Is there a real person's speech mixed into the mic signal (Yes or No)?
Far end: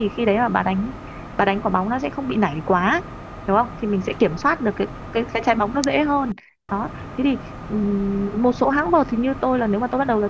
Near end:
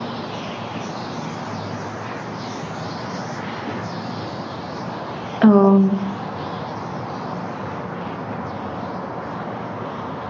Yes